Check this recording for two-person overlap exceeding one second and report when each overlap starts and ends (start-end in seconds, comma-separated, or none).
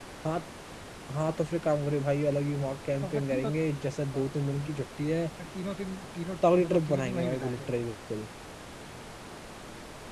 6.4-7.7